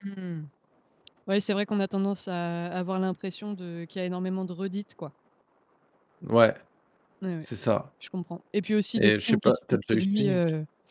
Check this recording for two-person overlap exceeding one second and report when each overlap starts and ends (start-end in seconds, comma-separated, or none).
9.0-10.4